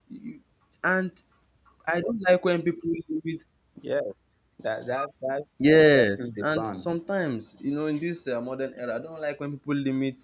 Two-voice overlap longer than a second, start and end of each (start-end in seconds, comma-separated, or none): 5.6-7.0